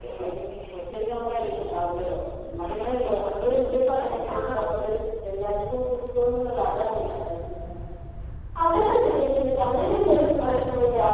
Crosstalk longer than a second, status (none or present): none